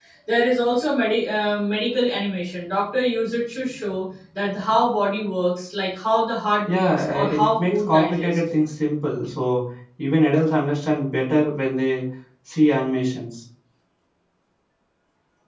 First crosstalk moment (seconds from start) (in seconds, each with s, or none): 6.7 s